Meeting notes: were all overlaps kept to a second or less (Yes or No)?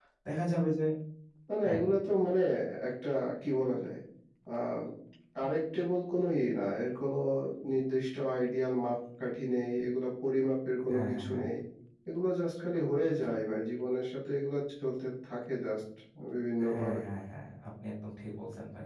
Yes